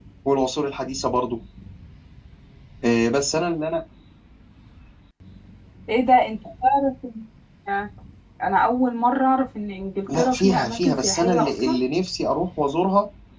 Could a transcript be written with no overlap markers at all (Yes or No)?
No